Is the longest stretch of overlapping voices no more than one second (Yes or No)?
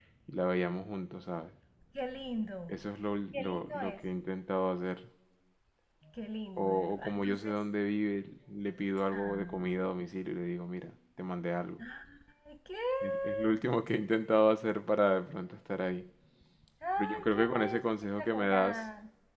No